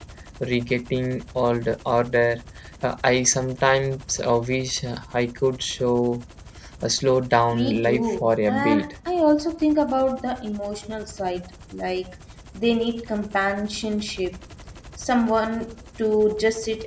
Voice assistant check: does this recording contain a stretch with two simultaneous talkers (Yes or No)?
Yes